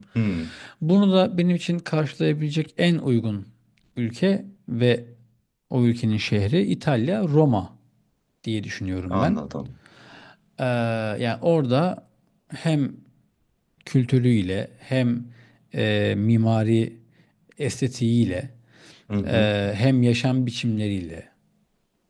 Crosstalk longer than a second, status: none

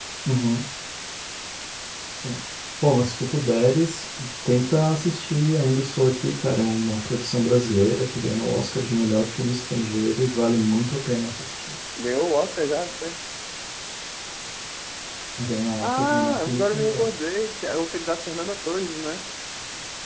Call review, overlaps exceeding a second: present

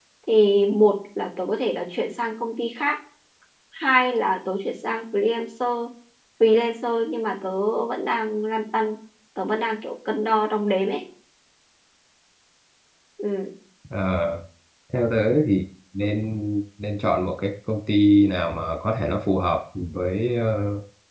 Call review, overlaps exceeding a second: none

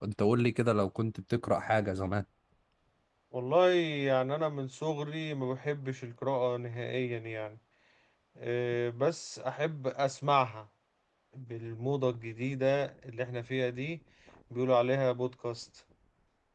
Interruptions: none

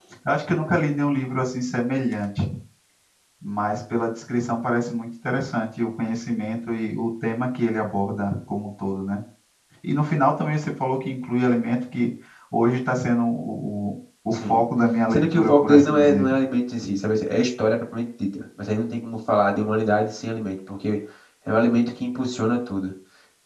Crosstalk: present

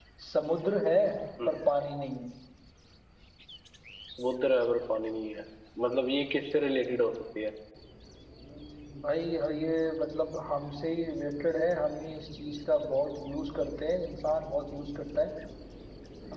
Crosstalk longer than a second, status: none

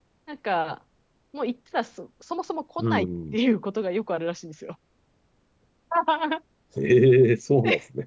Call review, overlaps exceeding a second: none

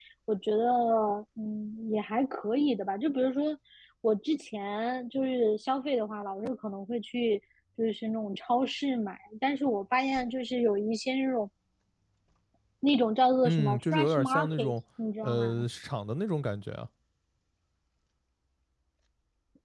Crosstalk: present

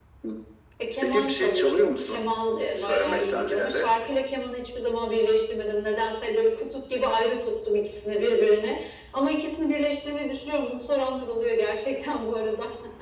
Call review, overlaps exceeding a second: present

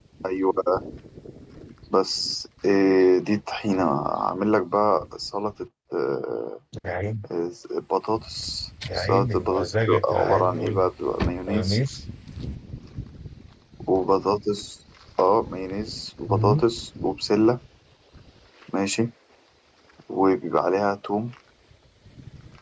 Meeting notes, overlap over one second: present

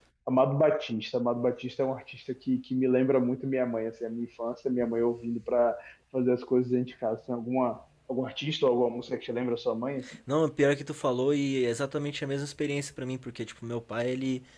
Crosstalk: none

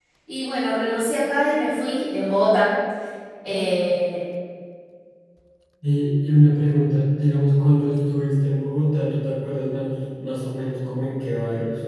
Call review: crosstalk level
none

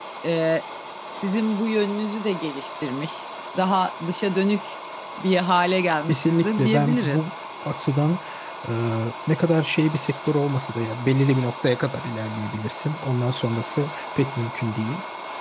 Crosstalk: present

